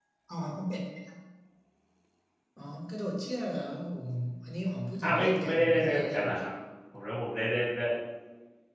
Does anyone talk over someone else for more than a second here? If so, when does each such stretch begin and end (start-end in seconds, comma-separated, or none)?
5.0-6.2